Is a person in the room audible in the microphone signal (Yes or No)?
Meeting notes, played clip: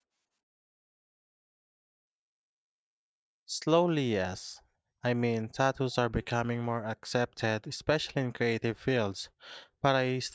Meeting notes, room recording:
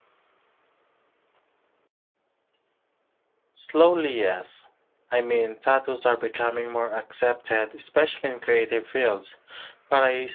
No